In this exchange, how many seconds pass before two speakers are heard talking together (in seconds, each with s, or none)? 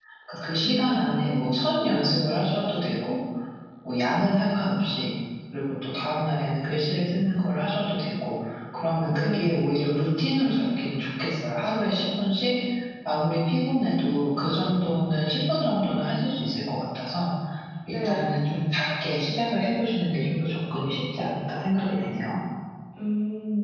0.6 s